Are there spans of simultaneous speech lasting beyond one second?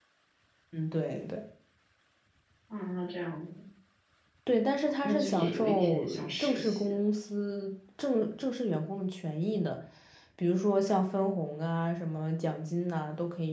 Yes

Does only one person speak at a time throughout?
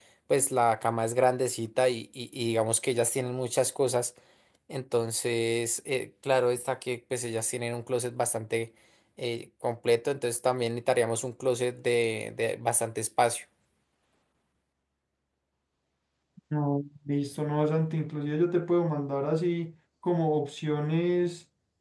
Yes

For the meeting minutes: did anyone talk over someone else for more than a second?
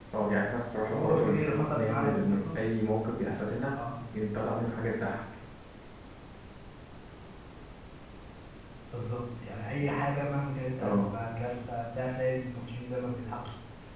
Yes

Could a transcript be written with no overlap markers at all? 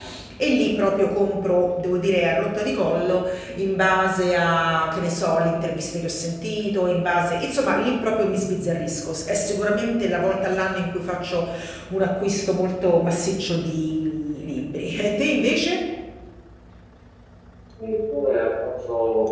Yes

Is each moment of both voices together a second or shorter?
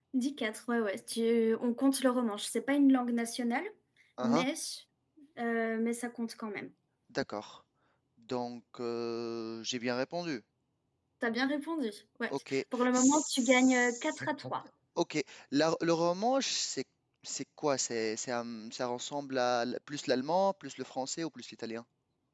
No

